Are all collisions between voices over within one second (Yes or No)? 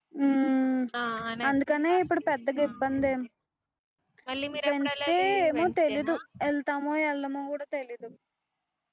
No